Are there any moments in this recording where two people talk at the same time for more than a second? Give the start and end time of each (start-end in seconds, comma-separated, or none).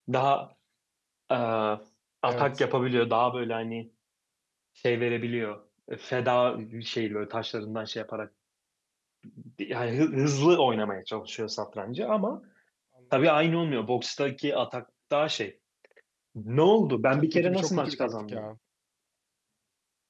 17.1-18.4